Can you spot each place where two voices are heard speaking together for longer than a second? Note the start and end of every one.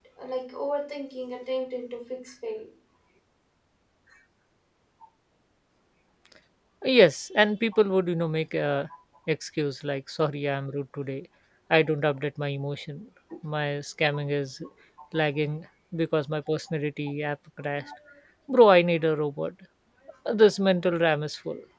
none

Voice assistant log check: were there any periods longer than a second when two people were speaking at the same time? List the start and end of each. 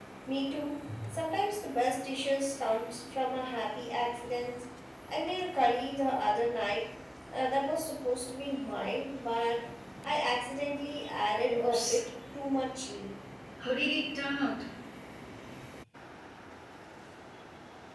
none

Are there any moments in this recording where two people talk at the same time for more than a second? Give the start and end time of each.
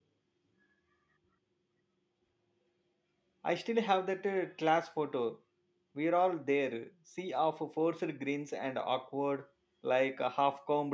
none

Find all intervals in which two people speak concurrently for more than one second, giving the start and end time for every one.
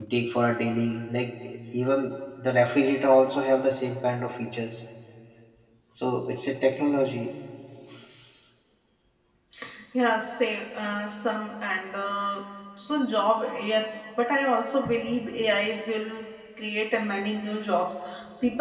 none

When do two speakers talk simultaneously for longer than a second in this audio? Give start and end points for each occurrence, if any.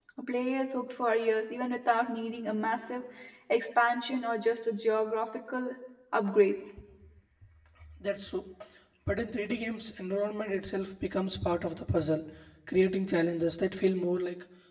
none

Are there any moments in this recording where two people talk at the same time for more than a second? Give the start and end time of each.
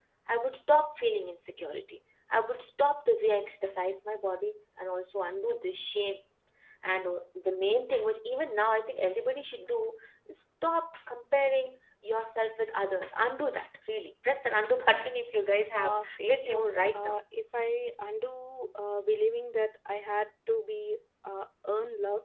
15.8-17.2

